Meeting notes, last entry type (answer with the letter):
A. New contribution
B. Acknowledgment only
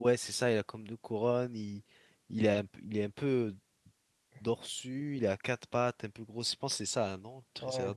A